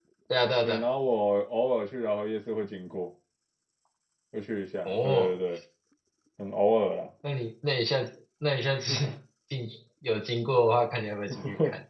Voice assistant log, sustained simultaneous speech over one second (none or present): none